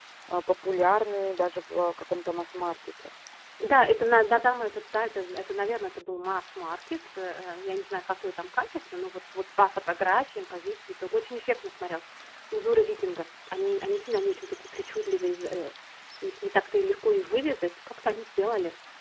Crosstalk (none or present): none